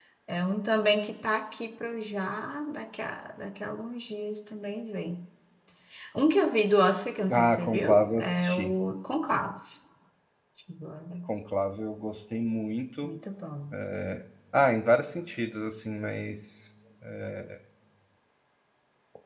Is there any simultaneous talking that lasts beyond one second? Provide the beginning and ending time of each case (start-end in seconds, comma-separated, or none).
7.3-8.7